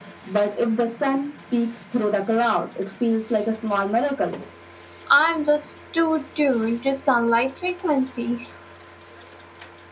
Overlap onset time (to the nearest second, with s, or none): none